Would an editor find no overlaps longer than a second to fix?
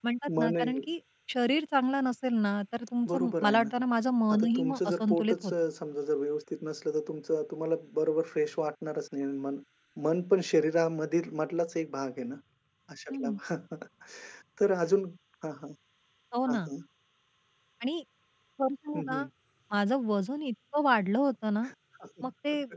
No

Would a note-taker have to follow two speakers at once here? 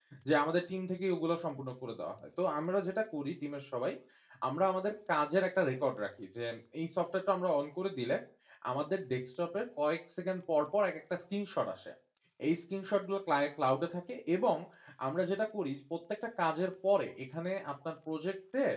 No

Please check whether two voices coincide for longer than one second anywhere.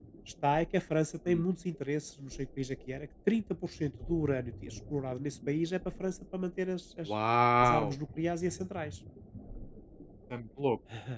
No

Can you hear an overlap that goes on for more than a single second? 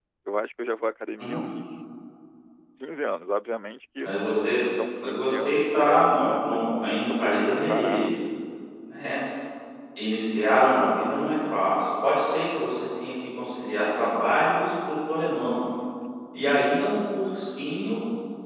Yes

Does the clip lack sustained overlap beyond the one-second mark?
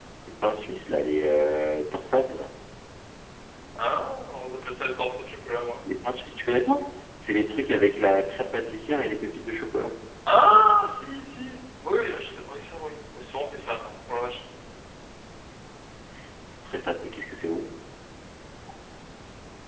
Yes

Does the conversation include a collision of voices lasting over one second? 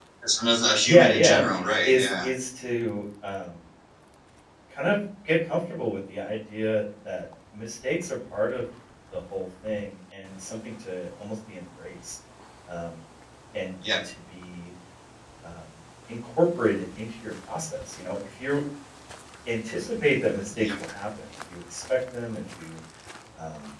No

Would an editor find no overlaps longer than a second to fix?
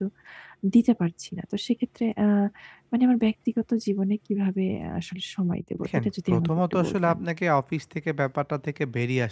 No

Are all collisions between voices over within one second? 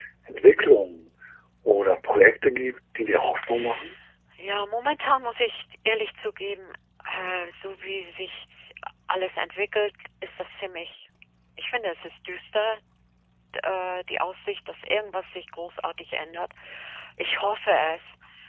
Yes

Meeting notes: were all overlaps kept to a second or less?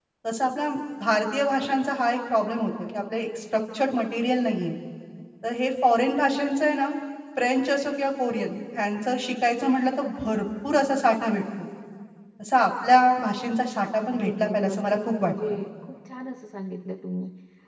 No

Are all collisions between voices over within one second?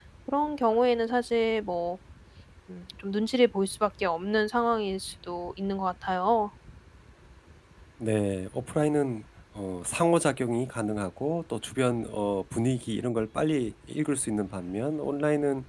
Yes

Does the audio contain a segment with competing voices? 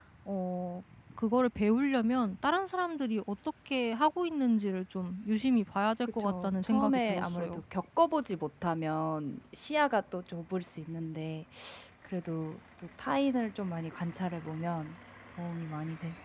Yes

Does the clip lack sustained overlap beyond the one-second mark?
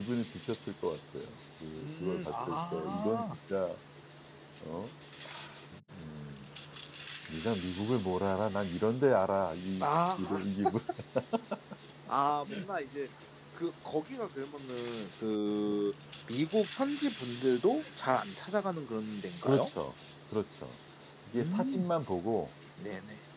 No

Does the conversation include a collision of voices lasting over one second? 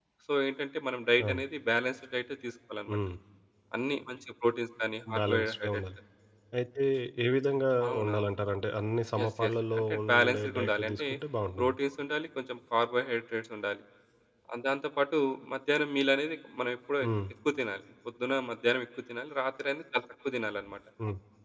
Yes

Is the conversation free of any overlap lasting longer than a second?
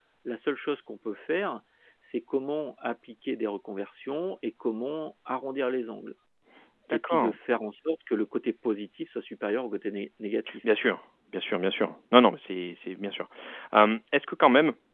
Yes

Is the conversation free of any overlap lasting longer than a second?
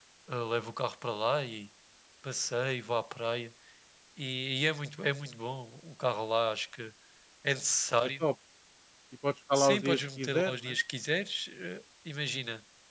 No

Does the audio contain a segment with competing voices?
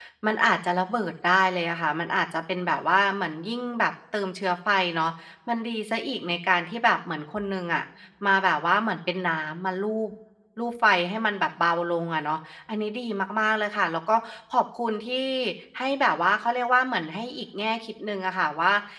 No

